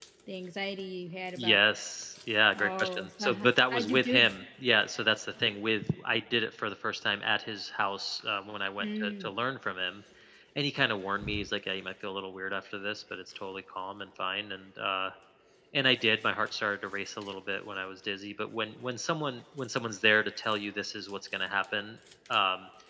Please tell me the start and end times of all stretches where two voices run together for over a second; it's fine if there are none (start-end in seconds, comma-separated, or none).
2.6-4.3